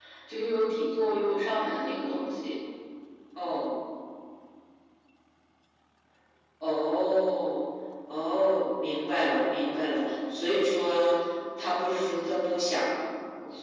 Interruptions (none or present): none